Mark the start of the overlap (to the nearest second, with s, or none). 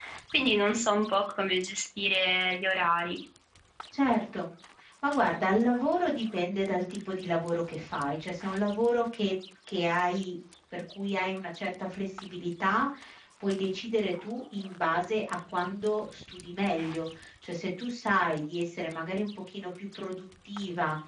none